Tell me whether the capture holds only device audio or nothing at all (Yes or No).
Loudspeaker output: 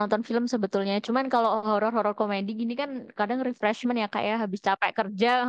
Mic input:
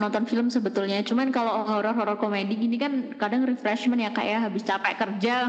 Yes